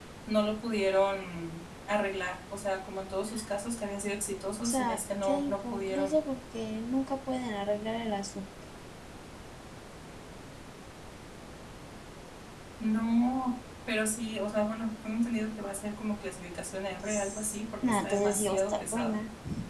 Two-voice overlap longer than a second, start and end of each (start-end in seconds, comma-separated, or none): 4.6-6.2, 17.9-19.1